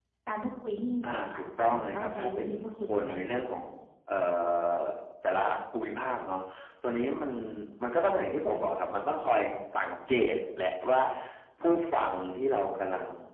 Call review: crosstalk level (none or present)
present